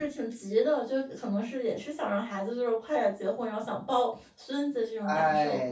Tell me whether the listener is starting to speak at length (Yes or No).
Yes